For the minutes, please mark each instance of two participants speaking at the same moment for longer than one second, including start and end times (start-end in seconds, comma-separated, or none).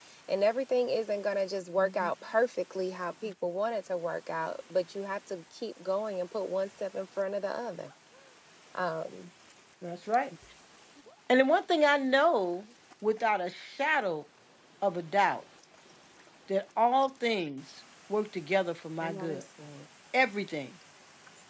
none